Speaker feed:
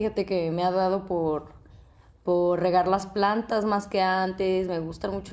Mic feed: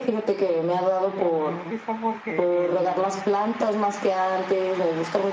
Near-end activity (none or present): present